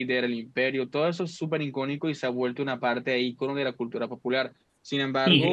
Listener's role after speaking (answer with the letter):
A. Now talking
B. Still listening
A